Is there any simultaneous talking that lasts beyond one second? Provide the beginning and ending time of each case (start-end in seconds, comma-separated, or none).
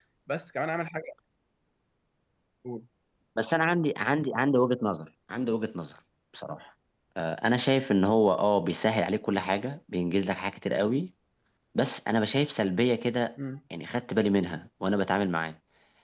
none